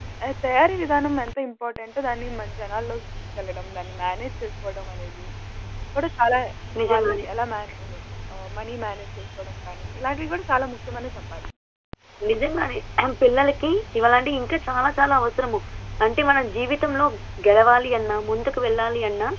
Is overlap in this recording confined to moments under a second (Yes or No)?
Yes